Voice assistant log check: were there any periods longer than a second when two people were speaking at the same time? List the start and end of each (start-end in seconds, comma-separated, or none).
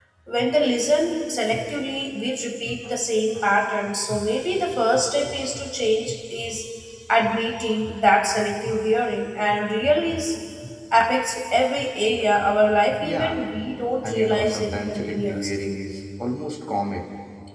14.0-15.6